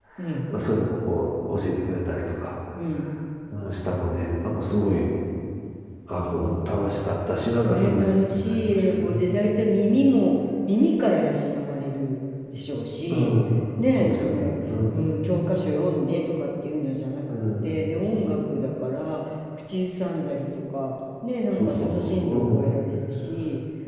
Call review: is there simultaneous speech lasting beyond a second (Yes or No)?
Yes